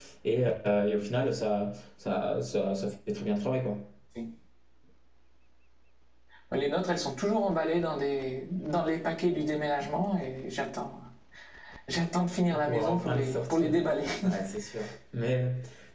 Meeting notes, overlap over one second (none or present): present